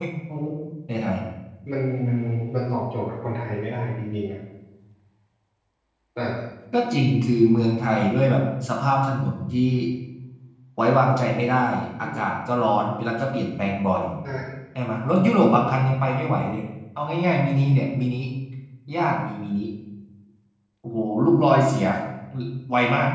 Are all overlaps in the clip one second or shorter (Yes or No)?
Yes